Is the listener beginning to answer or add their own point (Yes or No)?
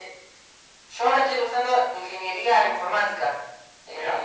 No